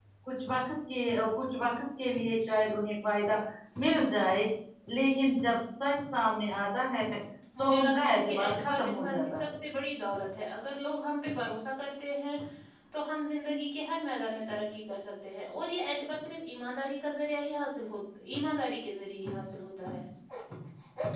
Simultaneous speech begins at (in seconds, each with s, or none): 7.6 s